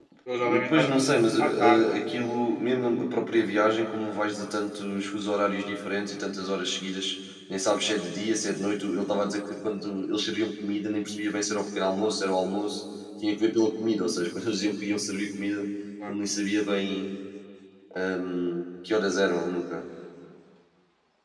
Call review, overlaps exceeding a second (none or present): present